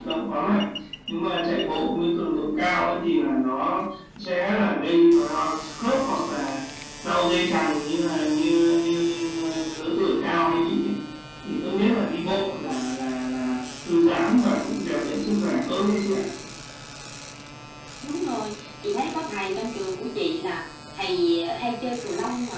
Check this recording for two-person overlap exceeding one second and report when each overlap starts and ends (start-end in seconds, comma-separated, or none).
none